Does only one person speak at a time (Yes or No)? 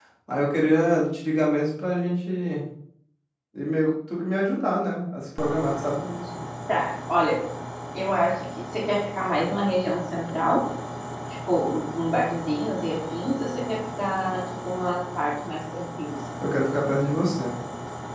Yes